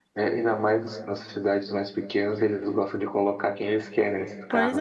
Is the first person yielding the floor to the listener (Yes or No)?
Yes